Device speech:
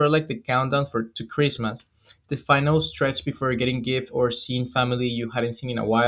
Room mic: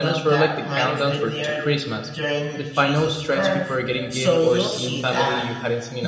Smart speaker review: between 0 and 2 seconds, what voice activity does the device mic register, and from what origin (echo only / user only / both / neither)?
both